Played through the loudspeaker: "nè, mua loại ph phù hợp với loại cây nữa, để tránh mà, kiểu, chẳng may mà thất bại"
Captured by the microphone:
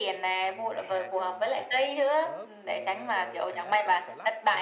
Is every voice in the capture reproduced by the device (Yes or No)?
No